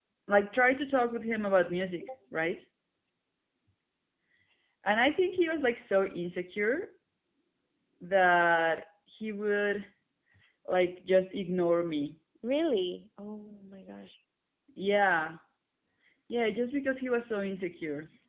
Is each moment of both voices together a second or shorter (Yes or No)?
Yes